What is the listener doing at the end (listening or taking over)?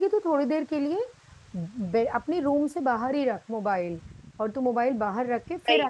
listening